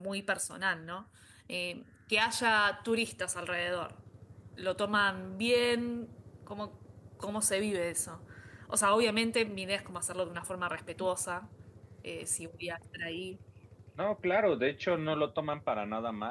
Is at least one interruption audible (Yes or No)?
No